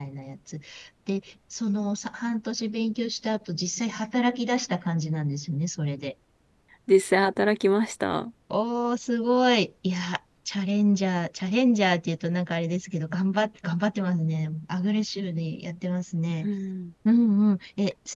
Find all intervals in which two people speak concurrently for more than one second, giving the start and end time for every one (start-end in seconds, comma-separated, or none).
none